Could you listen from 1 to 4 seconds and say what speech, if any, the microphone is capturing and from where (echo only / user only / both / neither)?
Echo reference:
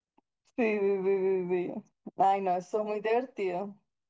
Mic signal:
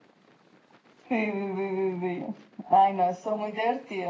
echo only